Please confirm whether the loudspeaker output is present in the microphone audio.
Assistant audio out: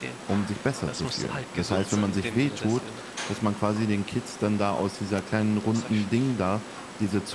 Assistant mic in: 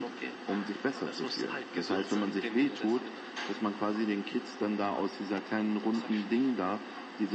Yes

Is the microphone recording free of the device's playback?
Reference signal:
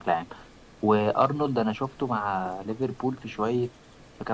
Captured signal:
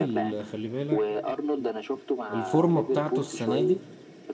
No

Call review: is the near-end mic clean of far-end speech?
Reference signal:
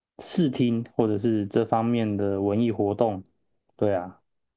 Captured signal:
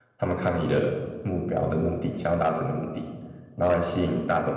Yes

